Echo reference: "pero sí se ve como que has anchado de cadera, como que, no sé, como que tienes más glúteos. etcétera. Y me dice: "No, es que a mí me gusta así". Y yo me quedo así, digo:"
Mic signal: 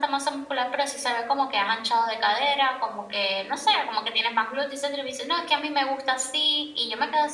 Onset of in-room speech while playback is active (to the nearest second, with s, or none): none